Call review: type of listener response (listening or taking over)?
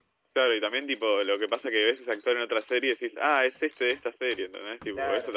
taking over